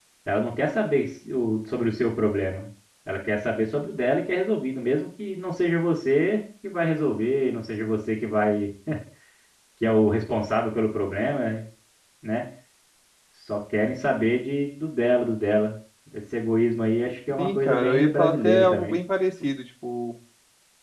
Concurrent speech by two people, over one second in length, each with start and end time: 17.4-18.9

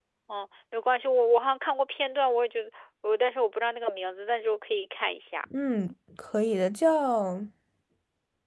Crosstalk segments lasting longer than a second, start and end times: none

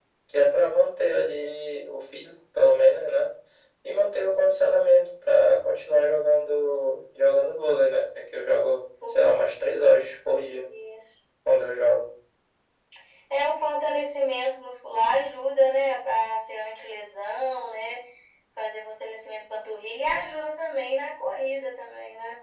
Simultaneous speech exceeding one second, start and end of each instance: none

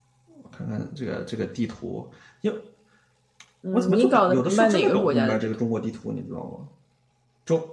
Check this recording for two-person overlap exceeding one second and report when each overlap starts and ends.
3.7-5.6

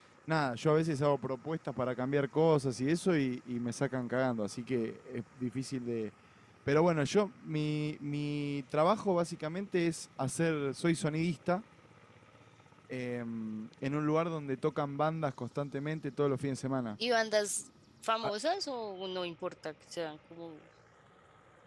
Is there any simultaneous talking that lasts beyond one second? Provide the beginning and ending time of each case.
none

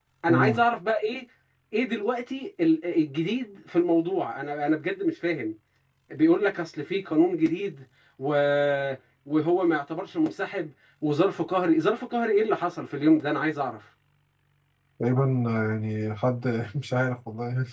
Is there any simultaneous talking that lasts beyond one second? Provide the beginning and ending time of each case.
none

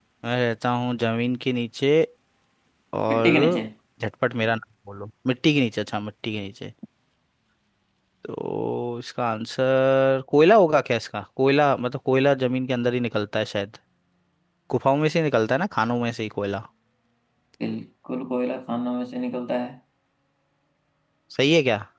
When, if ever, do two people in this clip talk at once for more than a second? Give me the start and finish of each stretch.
none

